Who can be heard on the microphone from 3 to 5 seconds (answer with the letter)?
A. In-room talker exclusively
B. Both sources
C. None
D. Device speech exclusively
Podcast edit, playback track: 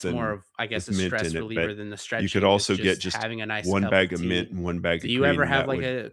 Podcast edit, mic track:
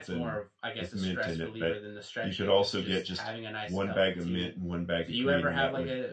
D